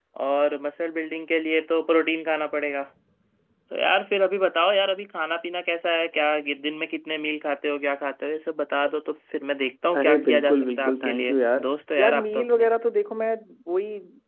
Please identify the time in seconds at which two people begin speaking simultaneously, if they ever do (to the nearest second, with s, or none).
10 s